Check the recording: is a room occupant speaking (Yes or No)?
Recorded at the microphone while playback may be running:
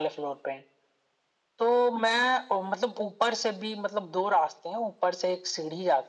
No